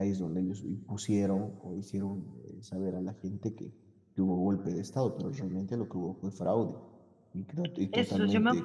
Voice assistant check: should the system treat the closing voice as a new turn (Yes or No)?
Yes